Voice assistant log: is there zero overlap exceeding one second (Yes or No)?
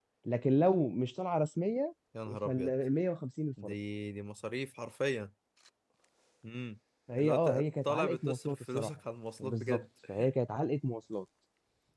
No